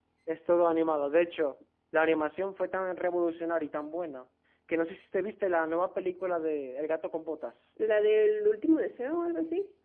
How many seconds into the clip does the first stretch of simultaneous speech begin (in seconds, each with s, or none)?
none